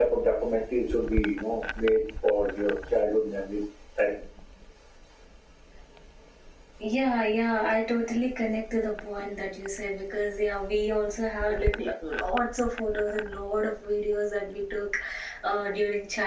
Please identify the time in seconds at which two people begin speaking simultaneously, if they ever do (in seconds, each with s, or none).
none